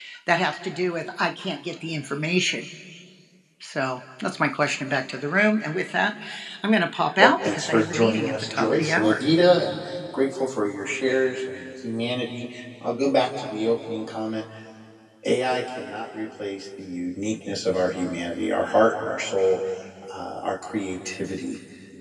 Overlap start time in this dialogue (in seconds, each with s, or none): 7.2 s